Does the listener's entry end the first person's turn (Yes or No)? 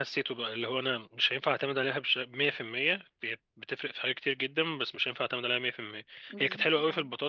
No